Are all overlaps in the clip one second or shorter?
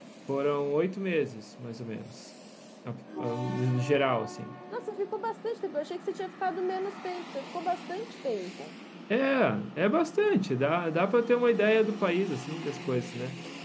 Yes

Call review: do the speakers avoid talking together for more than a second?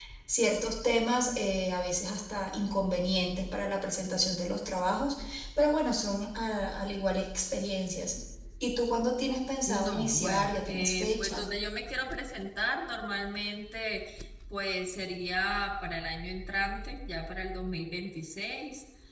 No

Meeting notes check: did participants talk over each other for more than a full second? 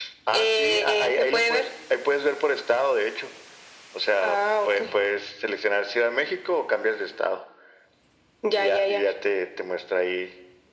Yes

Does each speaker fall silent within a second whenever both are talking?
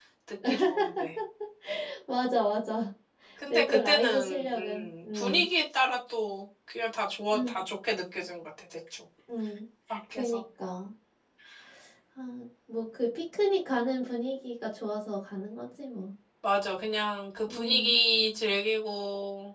No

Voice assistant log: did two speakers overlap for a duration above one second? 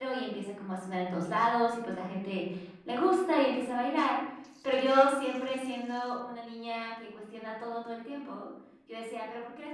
No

